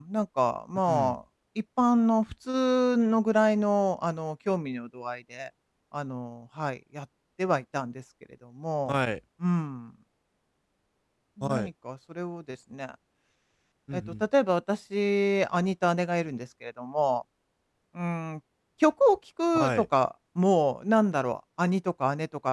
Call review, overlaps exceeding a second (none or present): none